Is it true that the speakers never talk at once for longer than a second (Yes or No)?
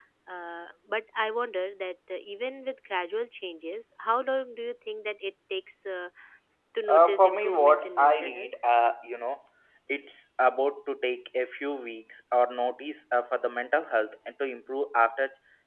No